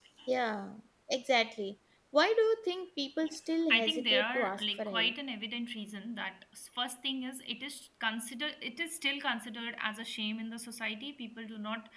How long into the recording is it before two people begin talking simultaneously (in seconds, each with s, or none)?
3.7 s